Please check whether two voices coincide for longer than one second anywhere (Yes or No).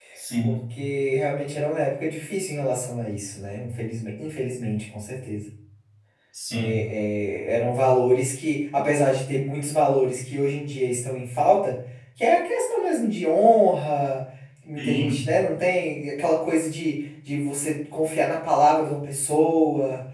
No